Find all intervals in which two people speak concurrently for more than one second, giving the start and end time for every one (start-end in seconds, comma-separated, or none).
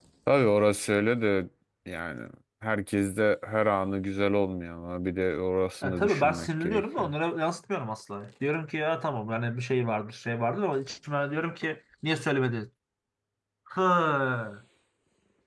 5.8-7.1